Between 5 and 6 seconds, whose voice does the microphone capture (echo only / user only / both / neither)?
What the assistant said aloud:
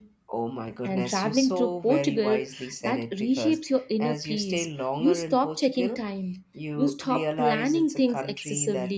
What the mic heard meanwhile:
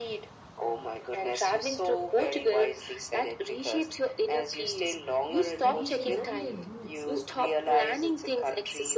both